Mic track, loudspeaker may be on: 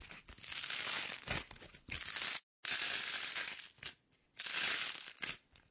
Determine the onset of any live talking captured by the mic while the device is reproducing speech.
none

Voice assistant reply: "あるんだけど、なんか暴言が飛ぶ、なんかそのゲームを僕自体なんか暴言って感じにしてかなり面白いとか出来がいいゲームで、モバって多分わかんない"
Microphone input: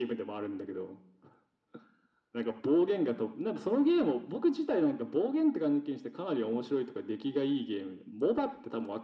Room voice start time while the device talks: none

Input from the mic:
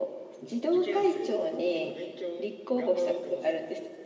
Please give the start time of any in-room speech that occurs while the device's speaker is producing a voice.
none

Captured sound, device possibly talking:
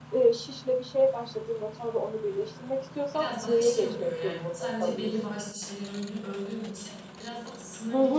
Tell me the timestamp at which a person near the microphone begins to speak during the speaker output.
3 s

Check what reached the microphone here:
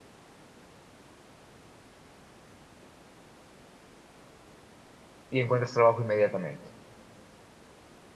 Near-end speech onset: 5 s

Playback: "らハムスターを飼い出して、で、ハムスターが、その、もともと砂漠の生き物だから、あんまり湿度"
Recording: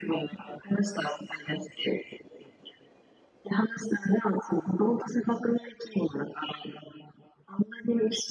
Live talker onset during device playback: none

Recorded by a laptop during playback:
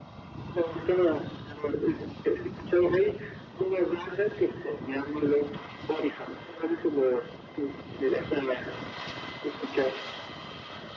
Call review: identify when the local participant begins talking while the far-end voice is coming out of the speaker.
none

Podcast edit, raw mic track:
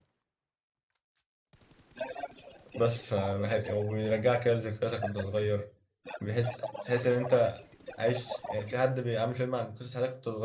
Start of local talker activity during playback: 3 s

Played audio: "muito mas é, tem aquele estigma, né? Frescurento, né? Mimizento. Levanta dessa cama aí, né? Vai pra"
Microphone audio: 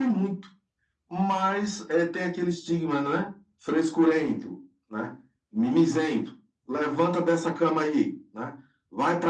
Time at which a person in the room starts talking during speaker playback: none

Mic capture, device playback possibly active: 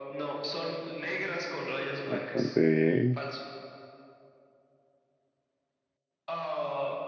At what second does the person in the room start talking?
2 s

